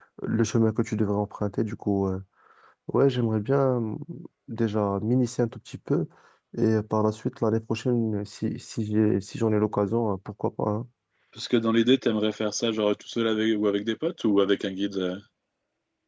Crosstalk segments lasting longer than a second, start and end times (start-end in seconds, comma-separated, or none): none